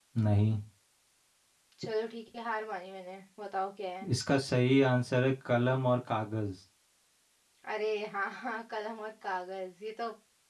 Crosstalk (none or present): none